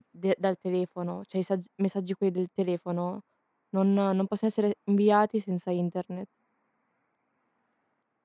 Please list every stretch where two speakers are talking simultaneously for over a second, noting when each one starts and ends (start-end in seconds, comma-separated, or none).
none